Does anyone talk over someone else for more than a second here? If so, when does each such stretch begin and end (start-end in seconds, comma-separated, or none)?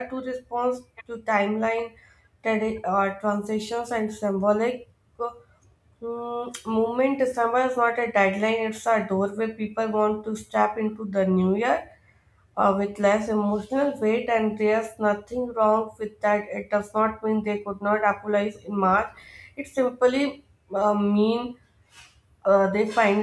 none